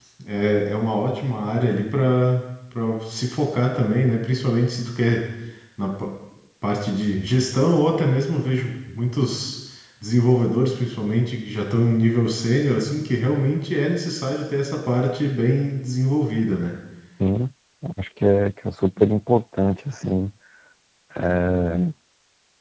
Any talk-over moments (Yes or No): No